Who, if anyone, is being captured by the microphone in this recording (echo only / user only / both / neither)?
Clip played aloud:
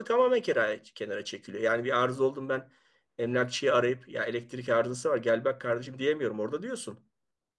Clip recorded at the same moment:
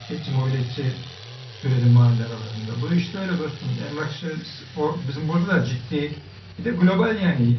user only